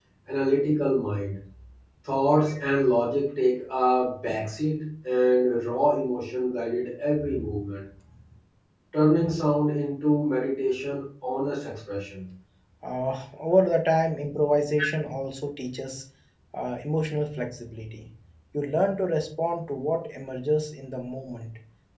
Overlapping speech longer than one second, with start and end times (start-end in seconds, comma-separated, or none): none